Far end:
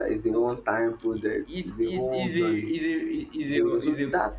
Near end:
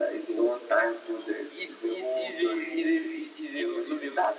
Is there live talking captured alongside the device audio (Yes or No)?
No